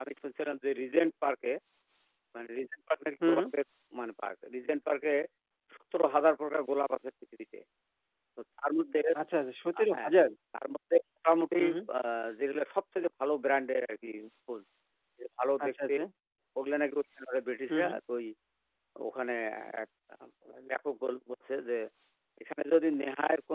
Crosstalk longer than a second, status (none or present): none